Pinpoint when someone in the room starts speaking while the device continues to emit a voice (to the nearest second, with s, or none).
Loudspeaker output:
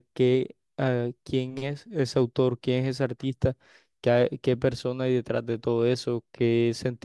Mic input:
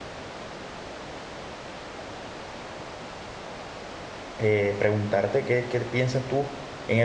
4 s